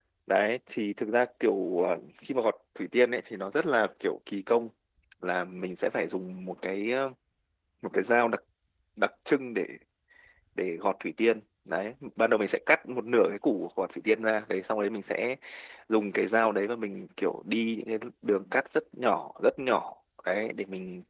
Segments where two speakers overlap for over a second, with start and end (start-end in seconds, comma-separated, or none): none